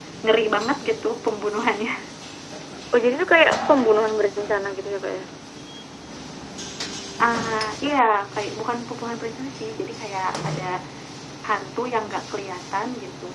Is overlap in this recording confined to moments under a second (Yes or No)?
Yes